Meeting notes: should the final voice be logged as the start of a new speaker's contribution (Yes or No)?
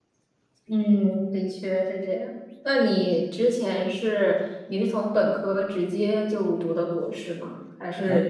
No